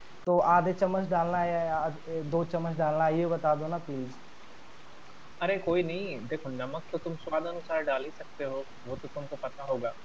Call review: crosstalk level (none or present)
none